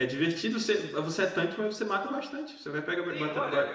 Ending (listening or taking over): taking over